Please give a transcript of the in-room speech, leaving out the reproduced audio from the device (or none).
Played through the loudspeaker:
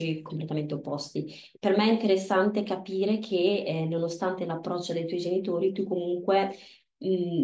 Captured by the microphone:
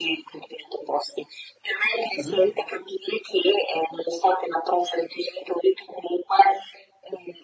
mhm.